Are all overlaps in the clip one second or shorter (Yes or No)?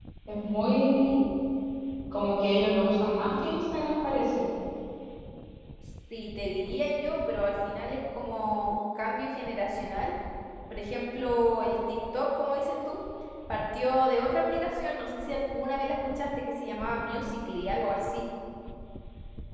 Yes